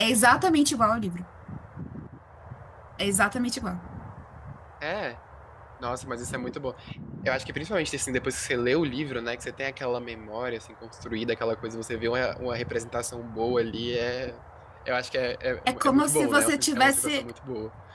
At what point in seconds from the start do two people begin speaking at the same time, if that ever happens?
15.7 s

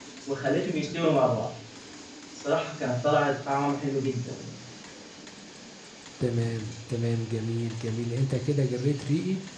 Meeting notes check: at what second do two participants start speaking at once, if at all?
none

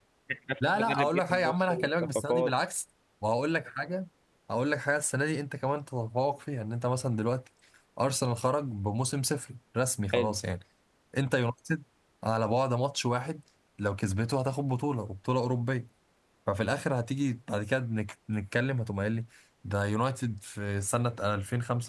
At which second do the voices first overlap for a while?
0.7 s

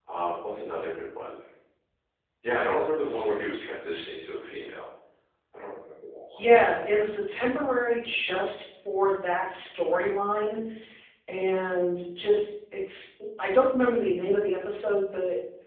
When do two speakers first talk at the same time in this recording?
none

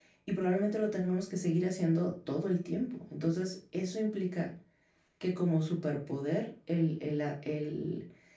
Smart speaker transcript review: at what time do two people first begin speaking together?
none

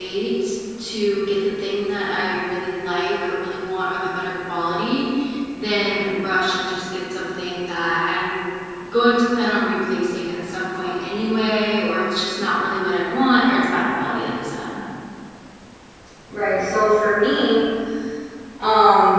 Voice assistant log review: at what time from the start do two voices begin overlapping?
none

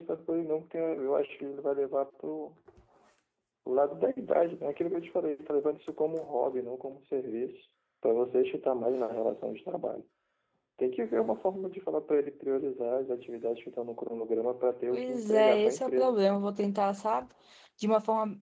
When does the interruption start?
14.9 s

